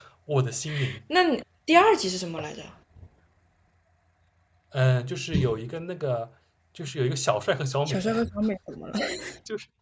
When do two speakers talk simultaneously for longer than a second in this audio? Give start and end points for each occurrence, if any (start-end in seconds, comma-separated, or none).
none